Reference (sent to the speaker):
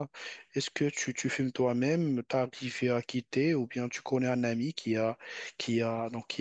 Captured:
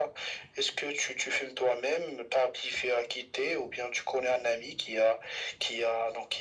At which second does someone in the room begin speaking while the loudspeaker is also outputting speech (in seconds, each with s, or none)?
none